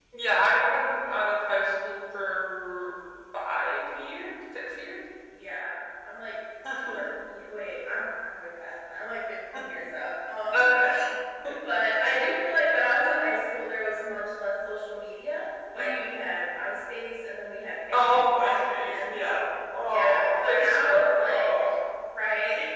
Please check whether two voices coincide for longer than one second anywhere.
Yes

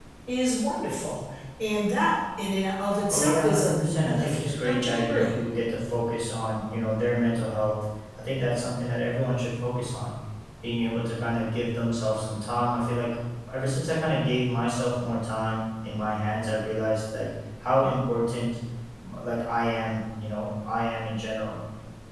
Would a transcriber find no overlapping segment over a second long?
No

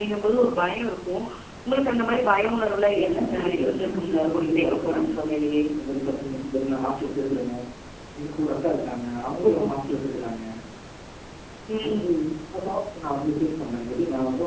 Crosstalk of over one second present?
Yes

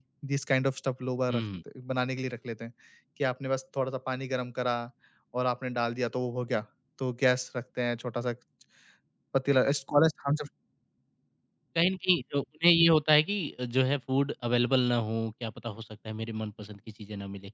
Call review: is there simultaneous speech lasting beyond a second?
No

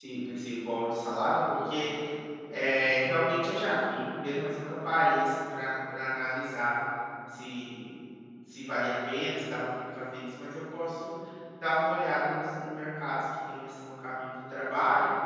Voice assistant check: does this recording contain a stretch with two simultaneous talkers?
No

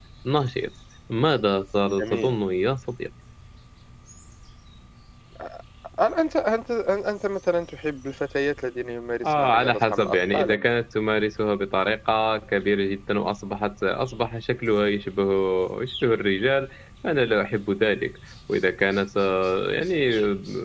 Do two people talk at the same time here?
Yes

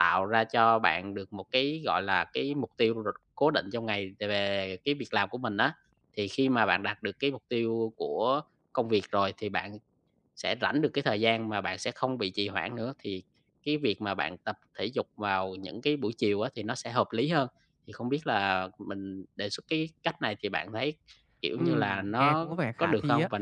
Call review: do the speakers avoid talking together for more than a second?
No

